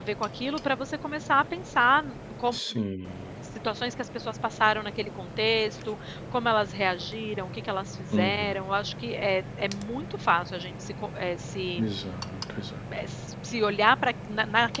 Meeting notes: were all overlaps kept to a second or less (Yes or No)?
Yes